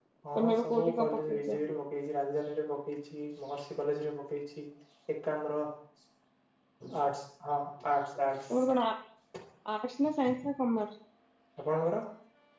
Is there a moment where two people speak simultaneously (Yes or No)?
Yes